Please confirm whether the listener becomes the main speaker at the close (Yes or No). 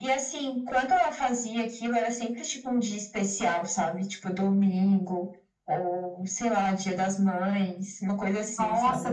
Yes